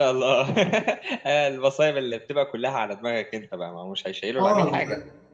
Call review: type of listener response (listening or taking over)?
taking over